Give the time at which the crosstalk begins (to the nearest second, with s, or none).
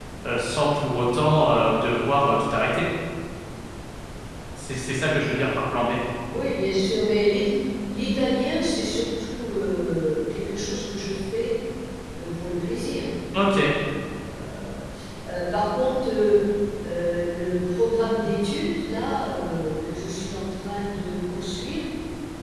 none